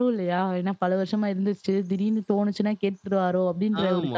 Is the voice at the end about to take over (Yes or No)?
Yes